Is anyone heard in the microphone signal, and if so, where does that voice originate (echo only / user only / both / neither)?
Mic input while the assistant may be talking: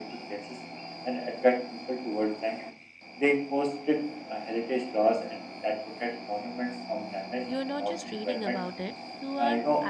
both